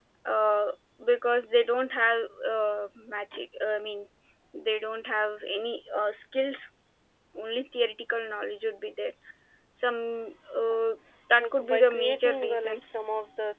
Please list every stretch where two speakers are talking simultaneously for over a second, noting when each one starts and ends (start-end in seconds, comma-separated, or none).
11.4-12.8